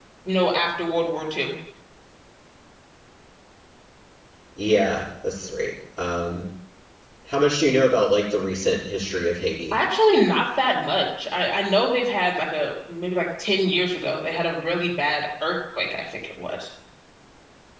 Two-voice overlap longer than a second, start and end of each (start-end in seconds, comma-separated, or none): none